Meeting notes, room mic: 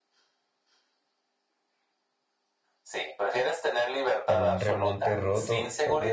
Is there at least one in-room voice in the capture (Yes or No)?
Yes